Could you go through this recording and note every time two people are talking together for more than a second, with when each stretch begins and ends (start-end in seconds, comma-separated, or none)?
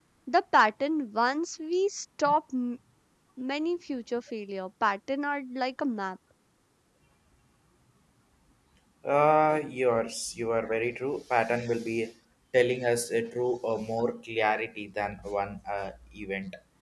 none